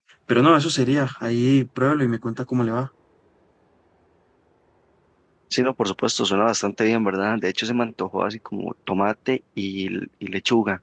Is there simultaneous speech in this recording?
No

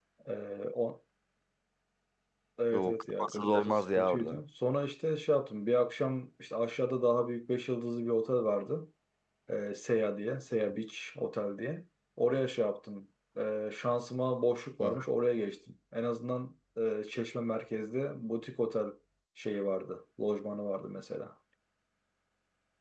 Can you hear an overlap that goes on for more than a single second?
Yes, from 2.7 s

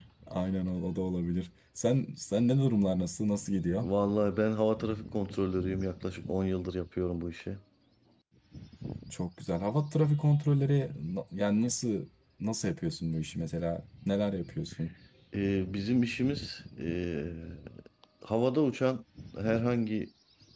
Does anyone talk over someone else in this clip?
No

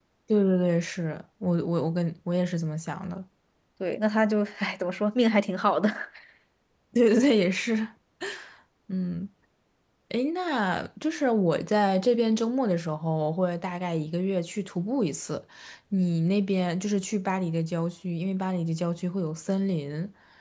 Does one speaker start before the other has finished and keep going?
No

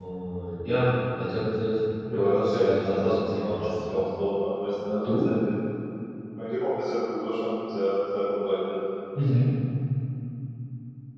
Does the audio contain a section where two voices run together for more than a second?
Yes, from 2.0 s

